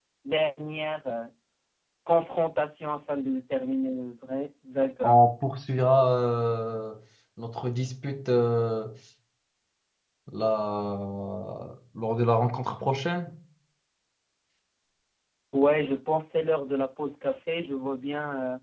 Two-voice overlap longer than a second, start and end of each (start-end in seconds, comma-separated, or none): none